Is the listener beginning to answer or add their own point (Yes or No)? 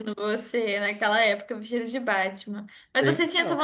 No